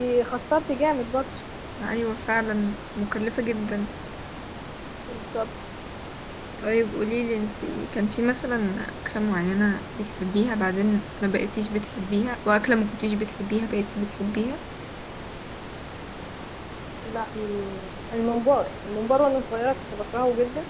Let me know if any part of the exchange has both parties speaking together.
No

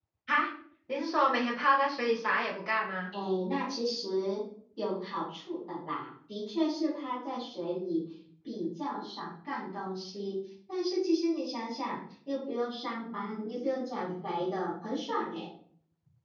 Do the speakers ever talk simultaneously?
No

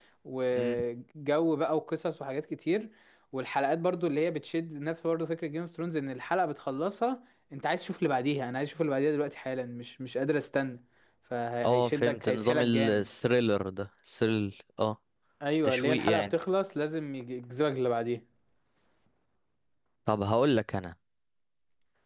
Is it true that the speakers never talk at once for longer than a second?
No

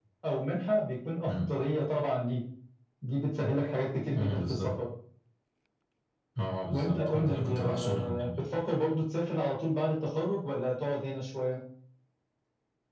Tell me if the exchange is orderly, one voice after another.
No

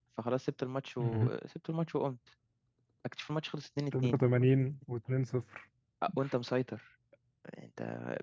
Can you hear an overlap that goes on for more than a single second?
No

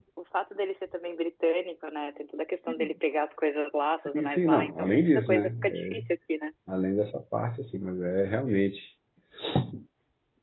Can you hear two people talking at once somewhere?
Yes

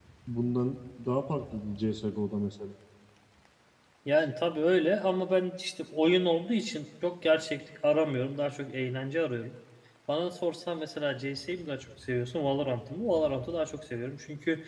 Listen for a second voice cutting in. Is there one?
No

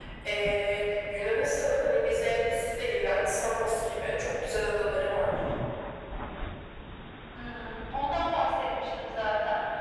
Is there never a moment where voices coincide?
Yes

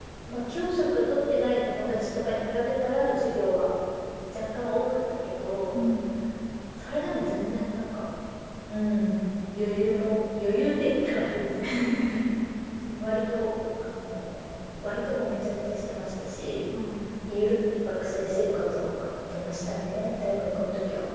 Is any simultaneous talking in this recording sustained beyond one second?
No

